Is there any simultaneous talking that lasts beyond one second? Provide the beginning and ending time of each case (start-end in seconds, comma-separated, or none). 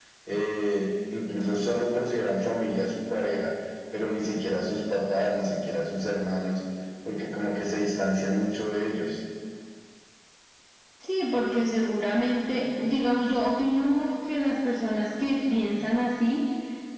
none